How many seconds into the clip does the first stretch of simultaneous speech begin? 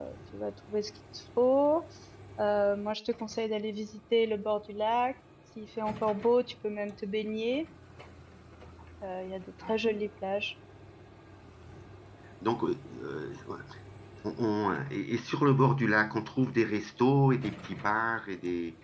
none

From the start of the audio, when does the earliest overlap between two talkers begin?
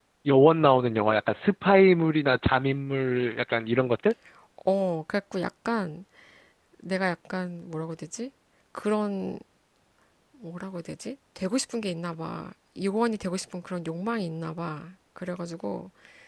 none

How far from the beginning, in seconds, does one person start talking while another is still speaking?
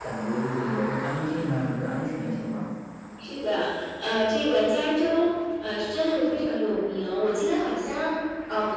none

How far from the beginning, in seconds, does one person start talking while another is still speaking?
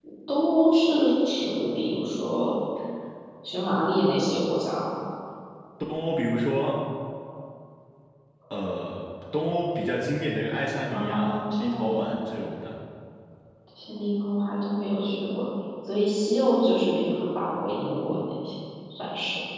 10.9 s

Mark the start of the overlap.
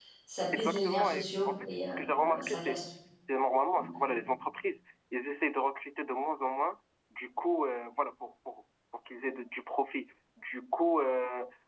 0.5 s

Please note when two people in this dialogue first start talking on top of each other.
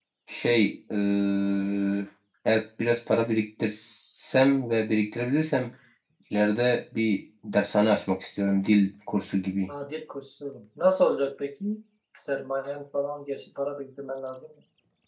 none

